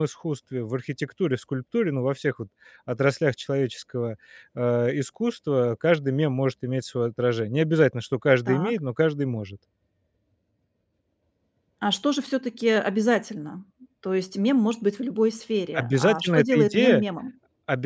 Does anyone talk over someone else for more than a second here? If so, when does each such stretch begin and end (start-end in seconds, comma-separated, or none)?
15.8-17.0